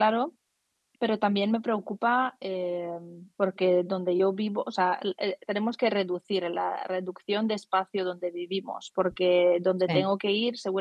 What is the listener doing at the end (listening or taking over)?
listening